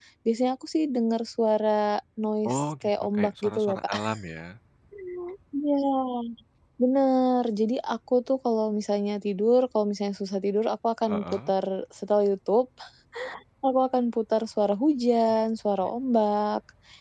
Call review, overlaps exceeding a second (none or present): present